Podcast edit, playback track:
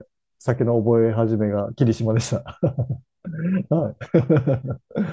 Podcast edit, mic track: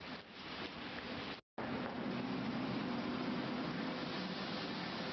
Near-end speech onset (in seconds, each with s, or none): none